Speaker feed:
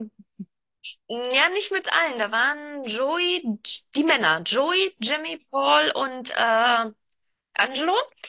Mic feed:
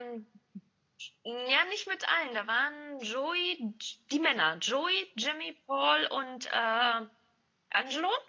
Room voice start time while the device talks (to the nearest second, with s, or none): none